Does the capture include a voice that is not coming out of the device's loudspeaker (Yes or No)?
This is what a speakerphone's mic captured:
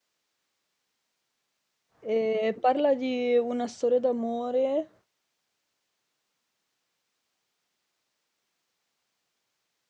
Yes